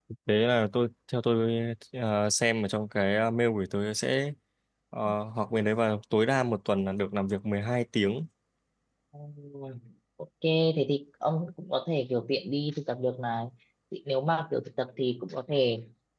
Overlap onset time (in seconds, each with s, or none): none